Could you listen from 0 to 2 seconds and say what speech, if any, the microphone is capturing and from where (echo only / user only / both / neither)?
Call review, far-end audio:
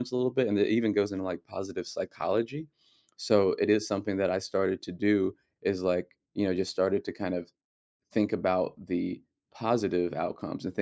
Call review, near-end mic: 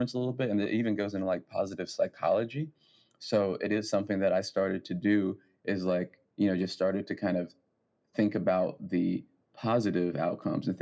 echo only